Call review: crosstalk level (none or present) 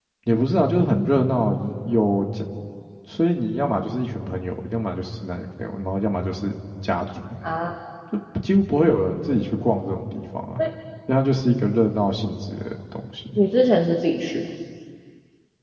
none